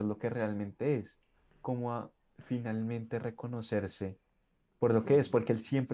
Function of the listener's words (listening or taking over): listening